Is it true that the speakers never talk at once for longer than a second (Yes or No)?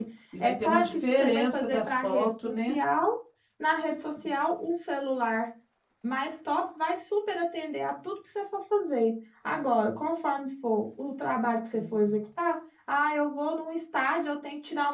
No